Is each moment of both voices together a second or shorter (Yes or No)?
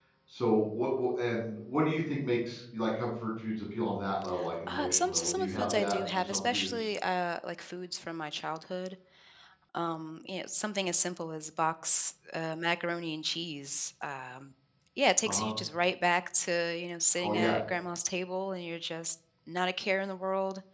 No